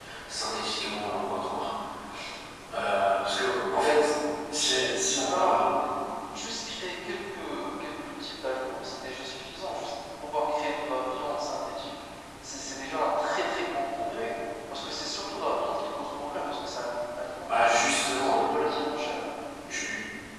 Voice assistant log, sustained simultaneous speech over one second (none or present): none